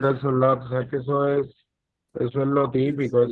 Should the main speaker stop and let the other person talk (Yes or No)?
Yes